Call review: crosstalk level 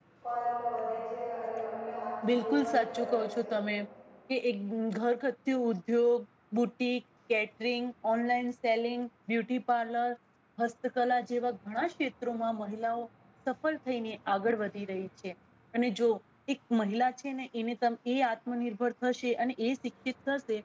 present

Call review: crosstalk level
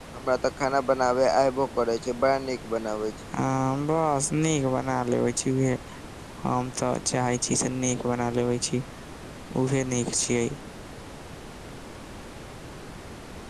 none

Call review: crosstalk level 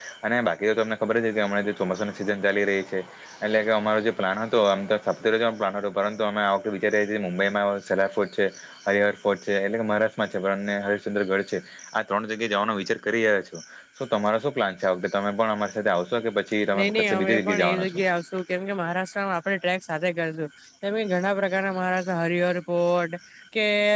present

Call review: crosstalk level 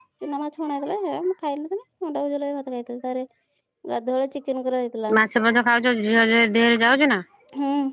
none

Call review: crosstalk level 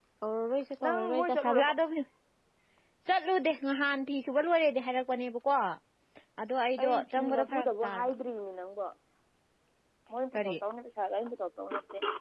present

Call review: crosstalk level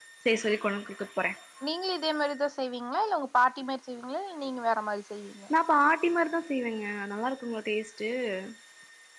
none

